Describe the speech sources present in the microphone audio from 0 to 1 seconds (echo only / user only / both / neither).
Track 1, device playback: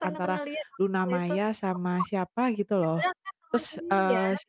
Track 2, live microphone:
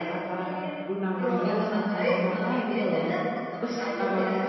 echo only